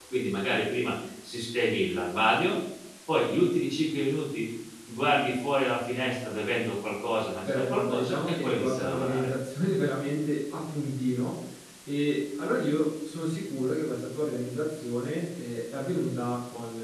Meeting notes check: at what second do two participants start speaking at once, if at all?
7 s

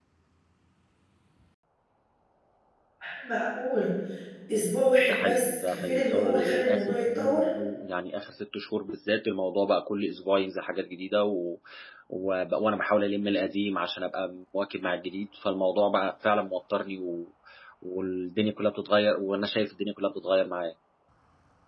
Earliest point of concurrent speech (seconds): 5 s

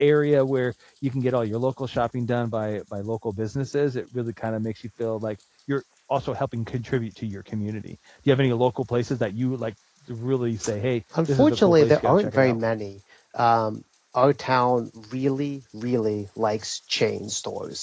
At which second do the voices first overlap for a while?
11 s

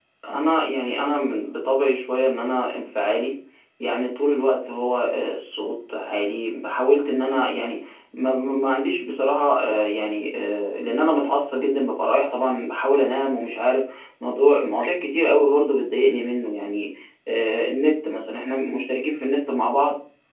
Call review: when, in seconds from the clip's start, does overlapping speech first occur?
none

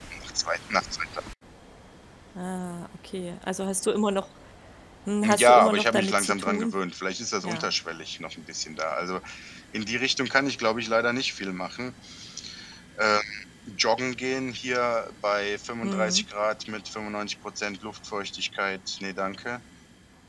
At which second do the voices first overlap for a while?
5 s

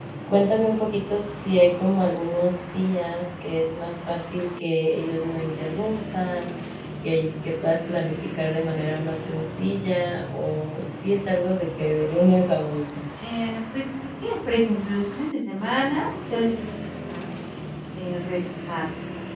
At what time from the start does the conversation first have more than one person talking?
none

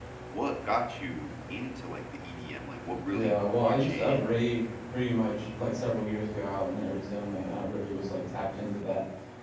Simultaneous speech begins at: 3 s

